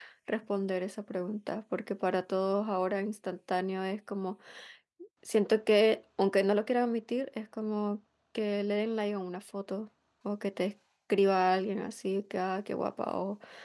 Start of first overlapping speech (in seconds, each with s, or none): none